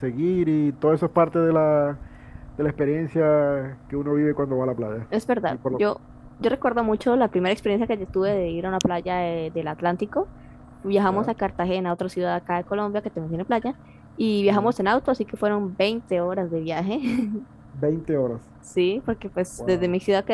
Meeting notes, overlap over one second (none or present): none